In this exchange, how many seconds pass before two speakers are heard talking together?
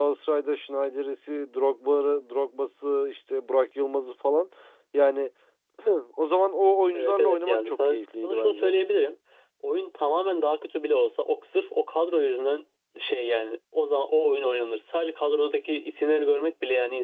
6.9 s

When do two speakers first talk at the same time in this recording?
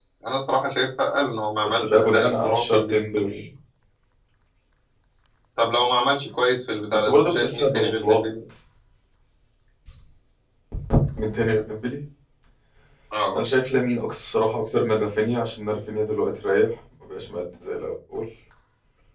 1.6 s

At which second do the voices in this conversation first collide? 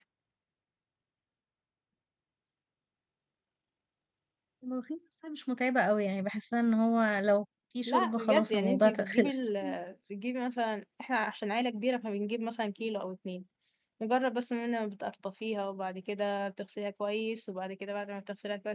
7.9 s

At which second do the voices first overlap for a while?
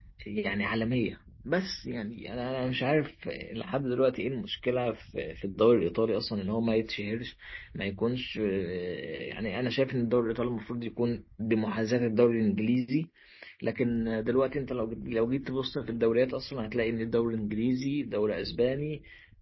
none

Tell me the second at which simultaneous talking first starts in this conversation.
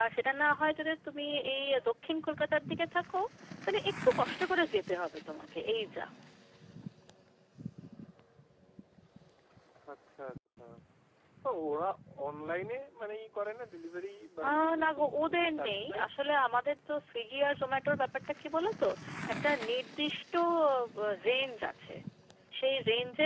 14.4 s

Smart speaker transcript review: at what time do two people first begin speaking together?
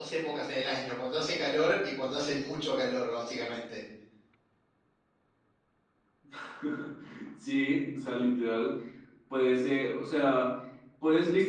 none

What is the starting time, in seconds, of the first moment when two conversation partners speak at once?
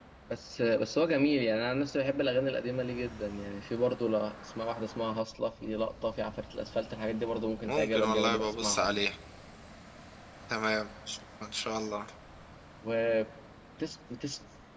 7.7 s

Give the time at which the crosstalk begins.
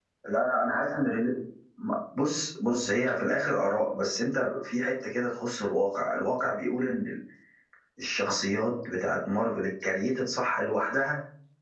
none

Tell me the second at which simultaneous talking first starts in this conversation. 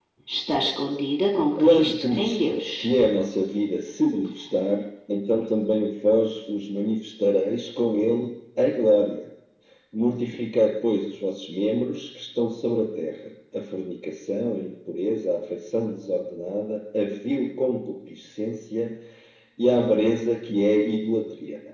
1.6 s

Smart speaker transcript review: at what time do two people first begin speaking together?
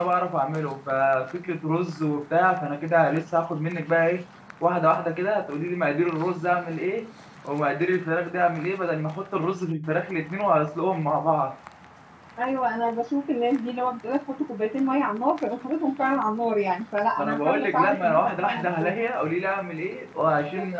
17.2 s

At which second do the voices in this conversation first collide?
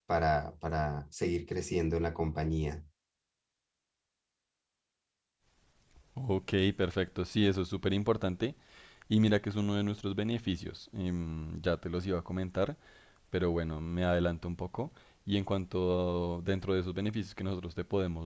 none

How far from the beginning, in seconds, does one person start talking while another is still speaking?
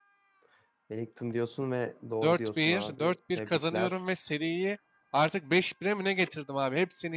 2.2 s

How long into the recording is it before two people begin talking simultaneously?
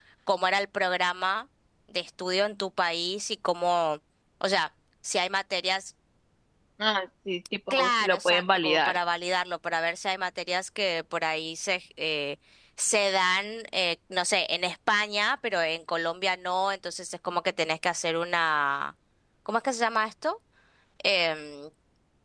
7.7 s

